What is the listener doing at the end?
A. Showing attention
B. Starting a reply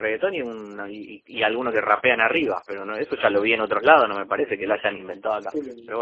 B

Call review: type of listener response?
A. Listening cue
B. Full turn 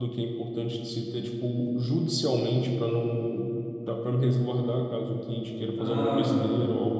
B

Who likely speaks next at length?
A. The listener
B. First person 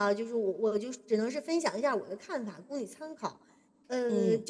B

